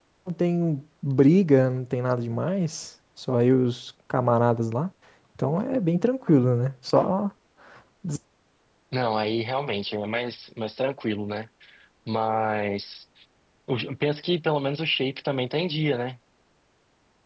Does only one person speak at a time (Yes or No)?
Yes